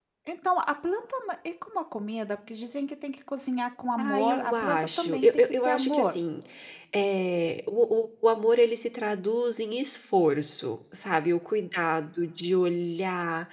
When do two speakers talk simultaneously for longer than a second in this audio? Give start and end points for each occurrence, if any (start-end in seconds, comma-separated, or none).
4.0-6.1